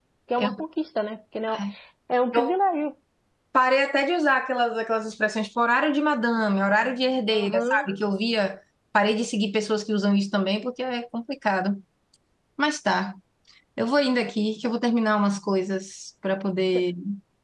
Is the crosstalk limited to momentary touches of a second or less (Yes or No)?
Yes